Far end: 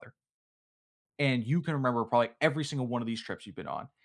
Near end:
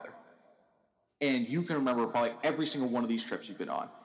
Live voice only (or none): none